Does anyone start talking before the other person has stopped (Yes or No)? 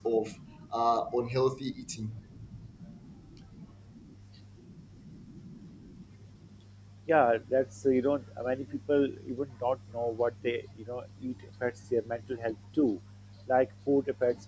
No